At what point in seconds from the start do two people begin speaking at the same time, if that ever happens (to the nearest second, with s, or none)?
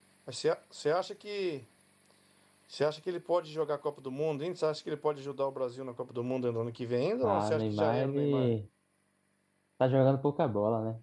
7 s